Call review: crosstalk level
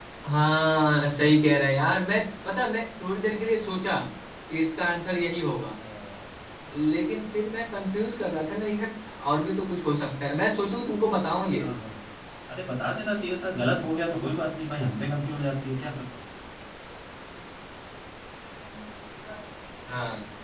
none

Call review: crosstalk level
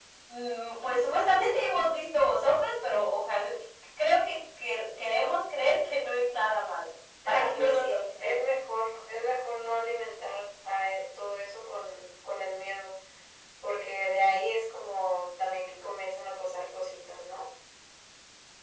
present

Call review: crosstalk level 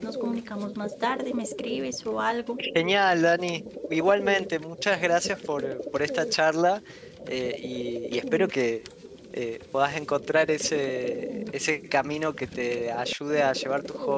none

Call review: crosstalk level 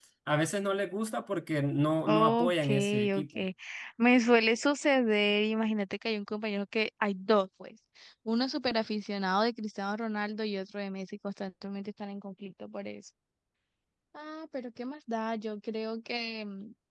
present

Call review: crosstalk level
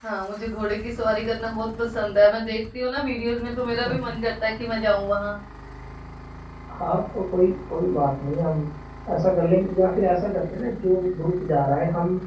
none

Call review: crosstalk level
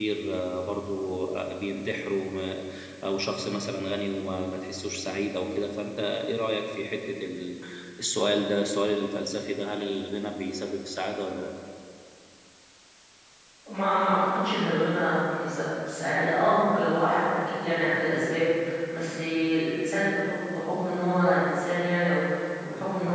none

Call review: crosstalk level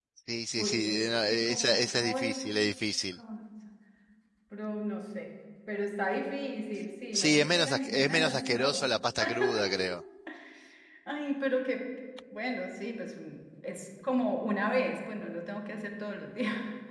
present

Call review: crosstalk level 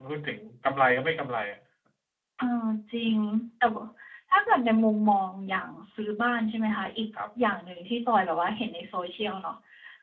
none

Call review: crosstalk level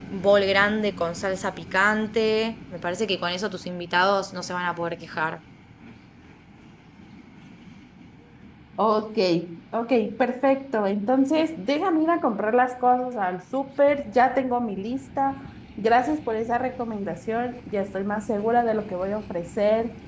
none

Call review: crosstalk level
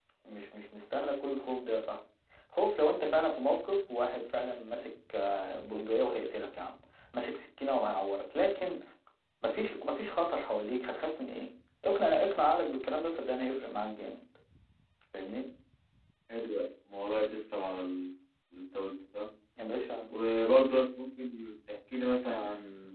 none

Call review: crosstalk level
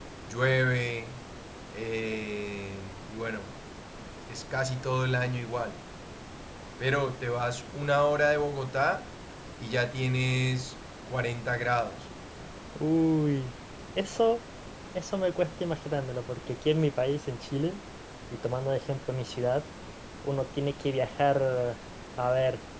none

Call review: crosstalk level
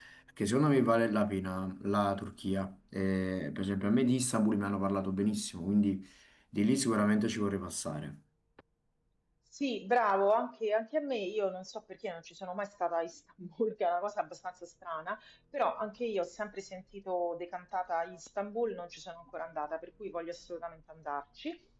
none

